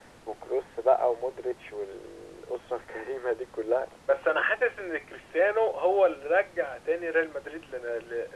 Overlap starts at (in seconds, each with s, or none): none